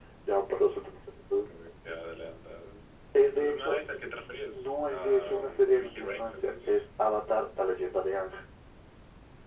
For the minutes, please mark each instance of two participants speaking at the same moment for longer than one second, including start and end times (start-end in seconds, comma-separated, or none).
4.5-6.8